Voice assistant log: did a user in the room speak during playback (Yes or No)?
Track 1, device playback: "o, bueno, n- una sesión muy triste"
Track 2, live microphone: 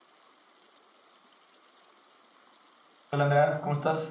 Yes